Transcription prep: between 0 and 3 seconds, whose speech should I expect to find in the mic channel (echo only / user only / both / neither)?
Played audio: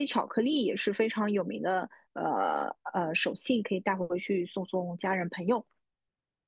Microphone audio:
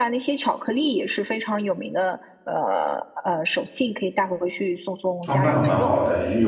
echo only